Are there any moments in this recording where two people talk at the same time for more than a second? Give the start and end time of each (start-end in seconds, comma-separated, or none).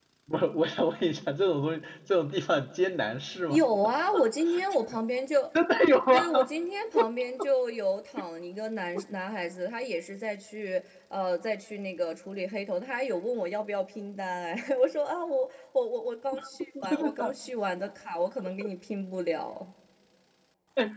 none